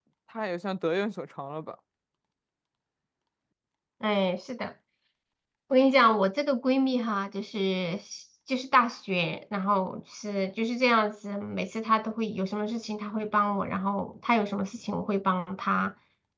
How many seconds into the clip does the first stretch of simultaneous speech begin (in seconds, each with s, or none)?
none